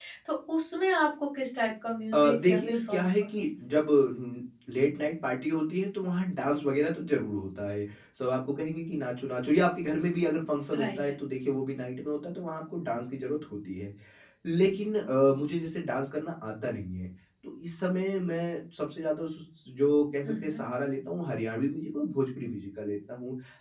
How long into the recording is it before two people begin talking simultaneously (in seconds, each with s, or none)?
2.1 s